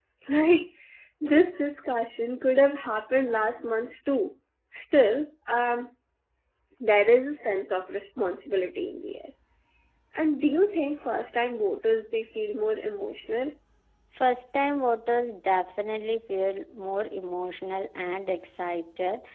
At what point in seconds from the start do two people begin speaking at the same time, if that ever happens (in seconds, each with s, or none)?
none